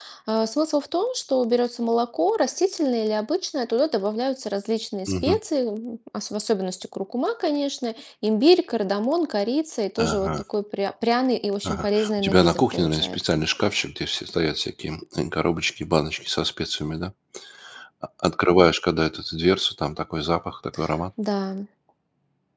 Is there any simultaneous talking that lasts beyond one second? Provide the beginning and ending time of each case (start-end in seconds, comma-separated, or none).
11.6-13.4